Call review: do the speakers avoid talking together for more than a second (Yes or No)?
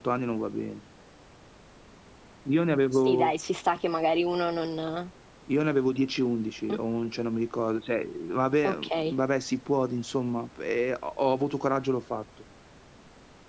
Yes